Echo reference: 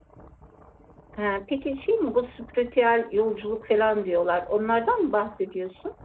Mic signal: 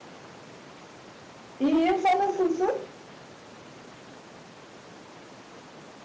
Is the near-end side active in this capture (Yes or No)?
Yes